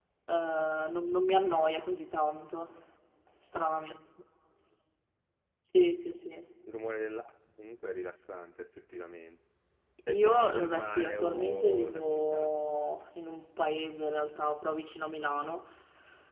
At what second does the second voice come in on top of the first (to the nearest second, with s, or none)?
10 s